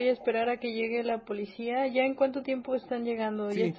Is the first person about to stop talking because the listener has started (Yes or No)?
Yes